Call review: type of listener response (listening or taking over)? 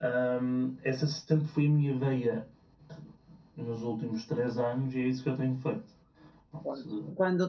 taking over